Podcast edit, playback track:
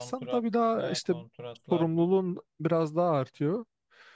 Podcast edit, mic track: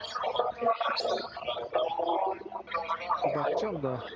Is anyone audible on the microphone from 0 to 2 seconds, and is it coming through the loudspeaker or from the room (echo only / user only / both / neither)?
echo only